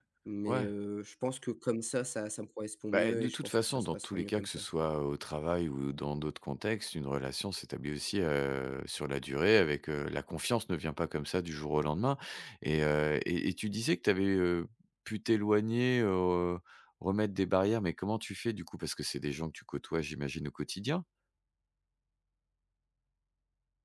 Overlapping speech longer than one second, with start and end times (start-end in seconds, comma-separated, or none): 2.9-4.6